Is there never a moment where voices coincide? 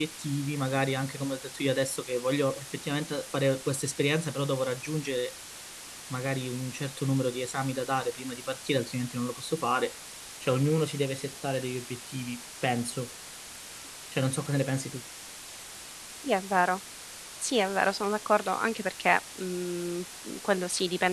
Yes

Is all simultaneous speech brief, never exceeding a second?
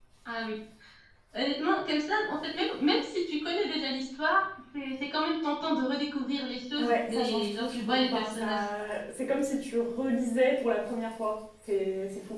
No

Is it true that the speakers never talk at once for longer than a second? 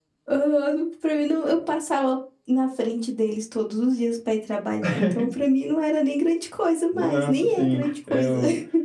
No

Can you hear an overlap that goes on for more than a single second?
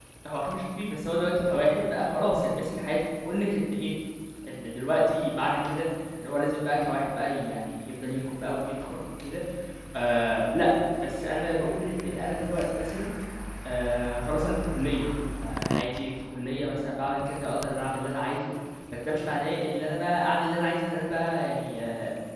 No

